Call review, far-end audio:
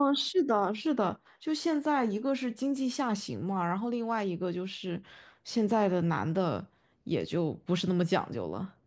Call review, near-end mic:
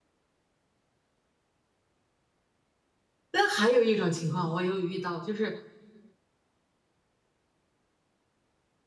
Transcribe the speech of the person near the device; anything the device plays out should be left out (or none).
但还有一种情况，我有遇到，就是